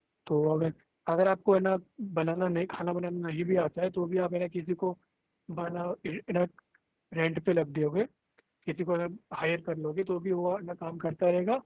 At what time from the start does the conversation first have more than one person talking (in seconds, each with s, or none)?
none